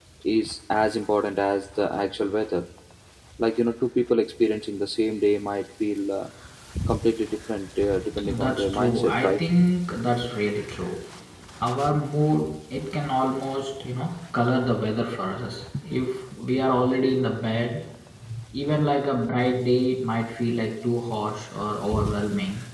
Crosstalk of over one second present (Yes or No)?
Yes